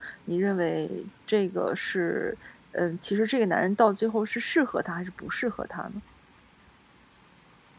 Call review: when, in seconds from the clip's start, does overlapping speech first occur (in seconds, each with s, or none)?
none